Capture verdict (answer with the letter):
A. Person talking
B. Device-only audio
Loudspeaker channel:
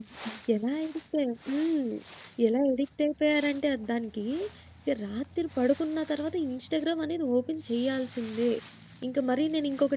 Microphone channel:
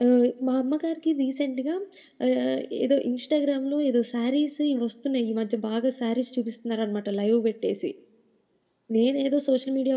A